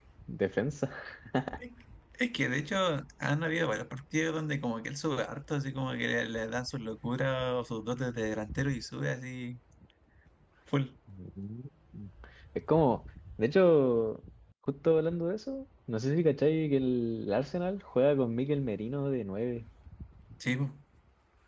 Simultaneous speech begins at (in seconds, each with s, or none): none